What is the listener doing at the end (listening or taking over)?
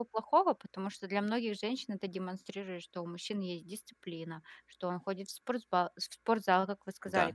listening